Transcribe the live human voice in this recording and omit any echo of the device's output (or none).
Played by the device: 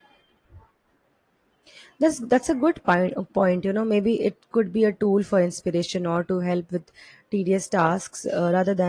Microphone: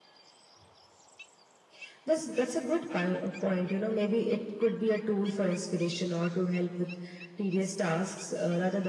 none